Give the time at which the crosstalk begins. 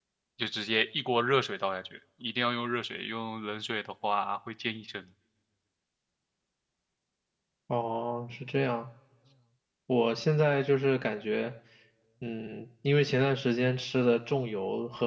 none

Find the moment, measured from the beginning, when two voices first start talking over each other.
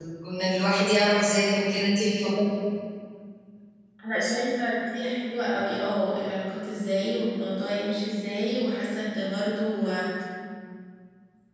none

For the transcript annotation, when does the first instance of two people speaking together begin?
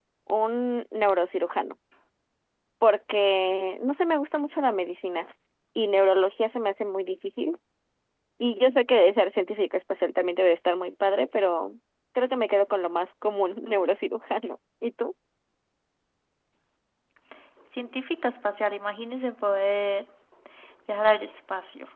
none

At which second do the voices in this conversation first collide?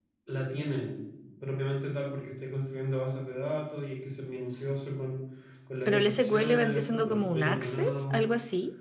5.8 s

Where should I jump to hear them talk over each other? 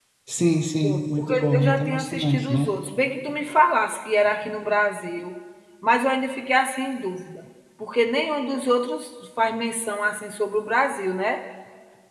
0.8 s

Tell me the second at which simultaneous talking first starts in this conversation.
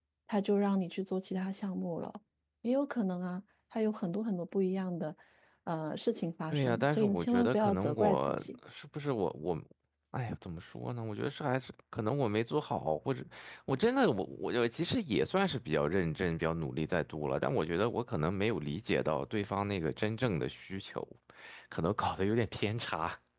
6.5 s

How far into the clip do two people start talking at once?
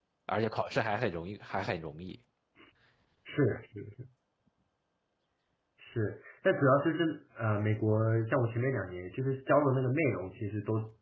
none

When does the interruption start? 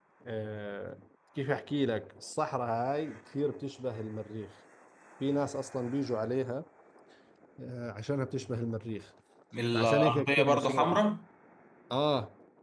9.7 s

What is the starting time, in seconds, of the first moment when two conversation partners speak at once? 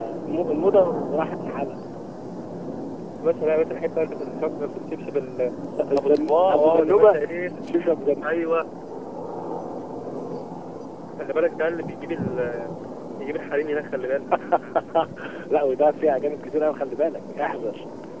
6.0 s

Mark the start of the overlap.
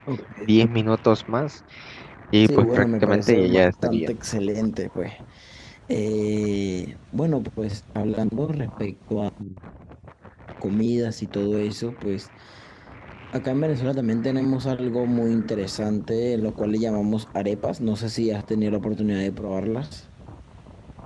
2.4 s

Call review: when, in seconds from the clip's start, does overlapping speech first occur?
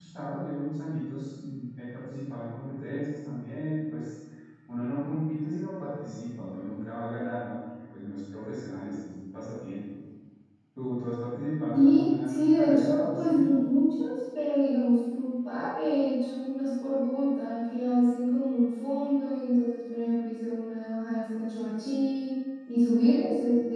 11.7 s

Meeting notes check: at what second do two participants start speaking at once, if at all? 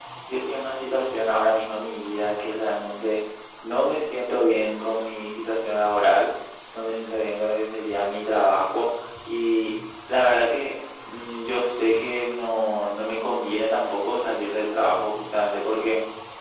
none

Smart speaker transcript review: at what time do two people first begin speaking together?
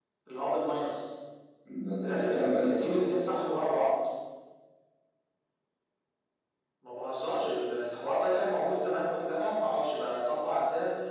2.0 s

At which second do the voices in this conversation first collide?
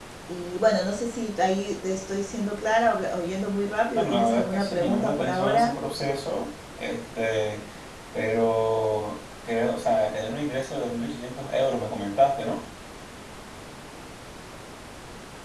3.9 s

